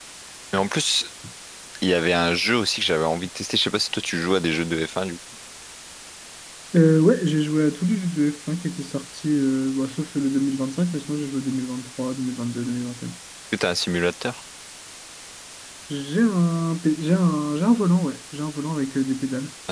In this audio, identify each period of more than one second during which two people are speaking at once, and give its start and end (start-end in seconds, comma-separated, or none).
none